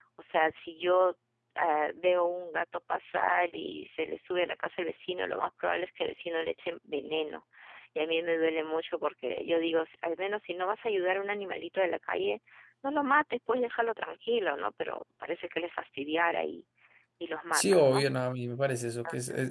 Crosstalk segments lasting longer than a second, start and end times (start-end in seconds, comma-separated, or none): none